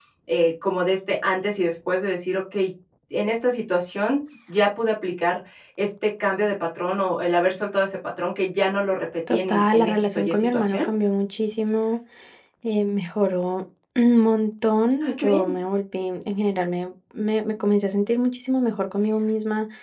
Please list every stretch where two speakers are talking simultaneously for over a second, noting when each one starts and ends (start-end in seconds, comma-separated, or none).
9.3-10.9